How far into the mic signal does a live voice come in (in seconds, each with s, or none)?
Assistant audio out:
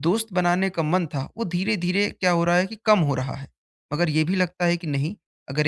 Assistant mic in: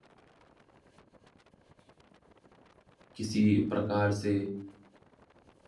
3.1 s